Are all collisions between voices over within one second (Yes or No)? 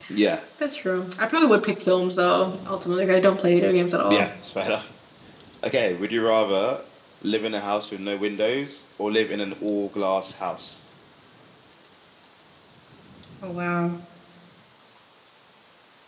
Yes